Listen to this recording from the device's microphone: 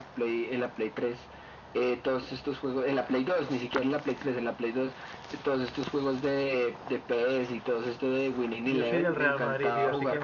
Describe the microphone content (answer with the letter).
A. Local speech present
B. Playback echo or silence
A